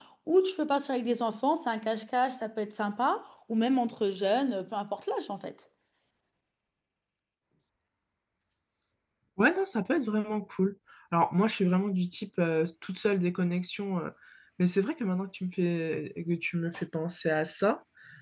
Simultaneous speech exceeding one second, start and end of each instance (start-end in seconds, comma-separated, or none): none